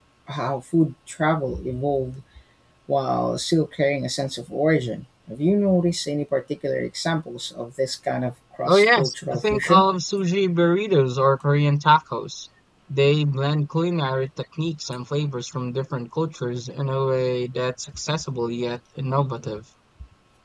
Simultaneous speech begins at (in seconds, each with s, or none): 8.7 s